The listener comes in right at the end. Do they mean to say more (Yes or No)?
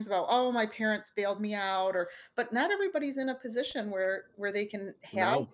No